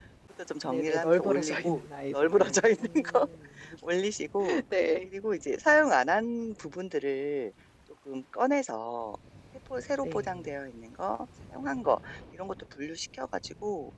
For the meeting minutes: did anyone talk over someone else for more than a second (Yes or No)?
Yes